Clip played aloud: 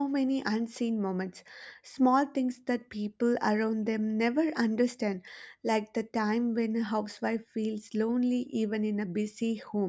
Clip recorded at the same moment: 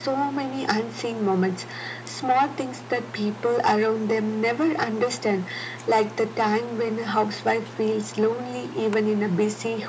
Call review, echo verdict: present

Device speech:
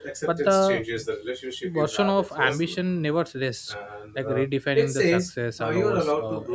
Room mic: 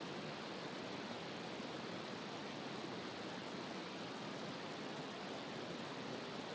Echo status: none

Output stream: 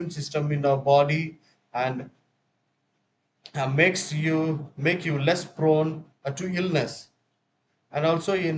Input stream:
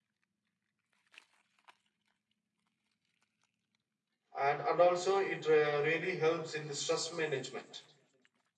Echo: none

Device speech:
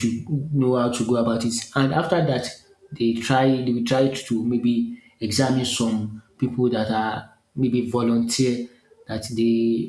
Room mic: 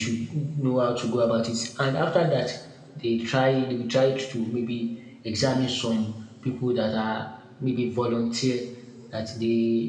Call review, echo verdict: present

